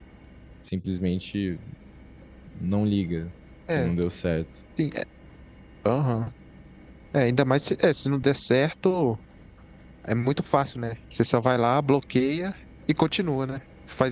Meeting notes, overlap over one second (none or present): none